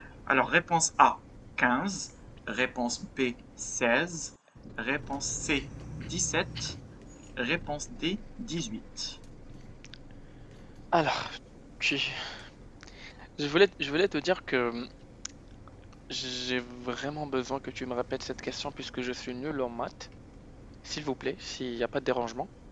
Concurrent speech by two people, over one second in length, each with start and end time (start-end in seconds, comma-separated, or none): none